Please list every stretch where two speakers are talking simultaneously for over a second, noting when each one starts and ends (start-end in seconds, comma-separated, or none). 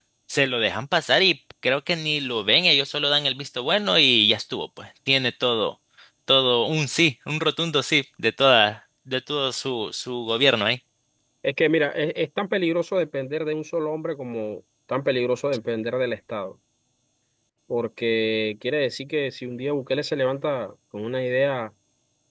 none